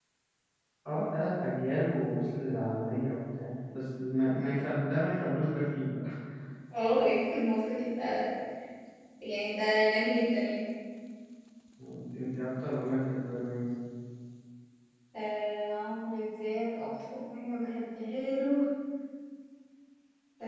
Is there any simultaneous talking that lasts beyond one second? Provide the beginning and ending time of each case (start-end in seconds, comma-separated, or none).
none